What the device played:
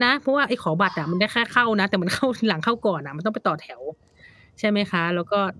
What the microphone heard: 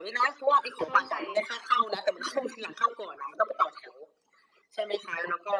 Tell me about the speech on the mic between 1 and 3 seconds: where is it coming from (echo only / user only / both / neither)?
both